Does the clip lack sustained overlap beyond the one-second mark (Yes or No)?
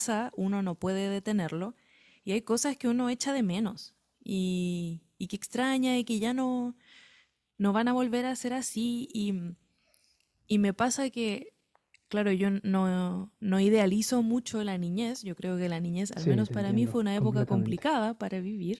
No